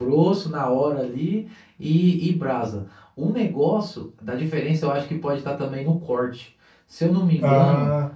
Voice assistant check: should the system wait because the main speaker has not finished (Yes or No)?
Yes